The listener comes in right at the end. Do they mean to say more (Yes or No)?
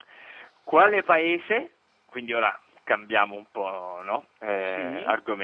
No